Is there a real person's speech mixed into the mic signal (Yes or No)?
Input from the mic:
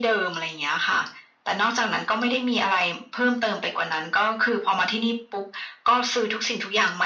No